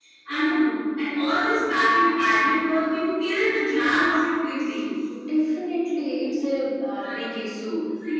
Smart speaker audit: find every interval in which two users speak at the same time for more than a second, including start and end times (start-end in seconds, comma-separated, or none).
none